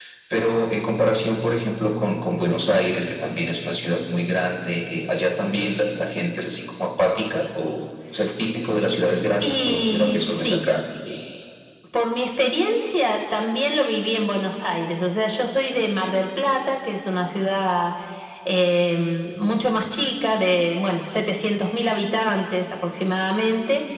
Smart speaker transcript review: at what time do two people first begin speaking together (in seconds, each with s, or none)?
9.4 s